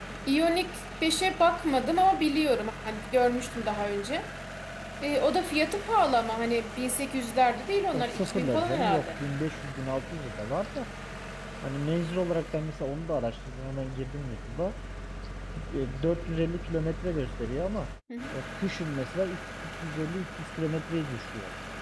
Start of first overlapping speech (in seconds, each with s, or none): 7.9 s